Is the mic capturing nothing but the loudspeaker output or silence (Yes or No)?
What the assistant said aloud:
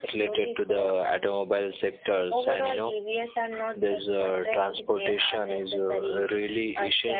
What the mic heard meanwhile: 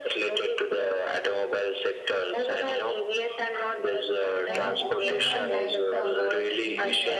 No